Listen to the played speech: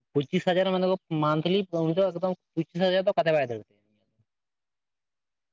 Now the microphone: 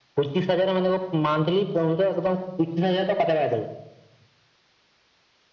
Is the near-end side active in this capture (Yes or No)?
No